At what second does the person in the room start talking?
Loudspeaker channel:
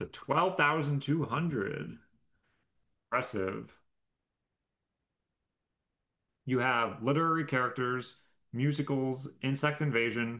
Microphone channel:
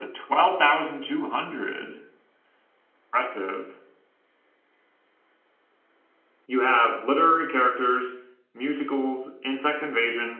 none

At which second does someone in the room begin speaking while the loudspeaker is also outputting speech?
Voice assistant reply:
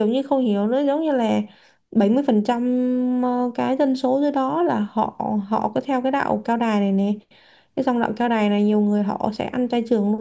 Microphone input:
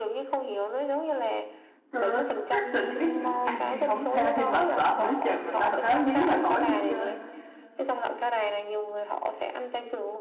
1.9 s

